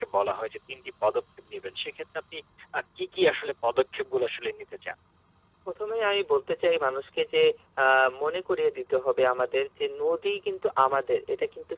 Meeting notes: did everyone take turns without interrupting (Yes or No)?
Yes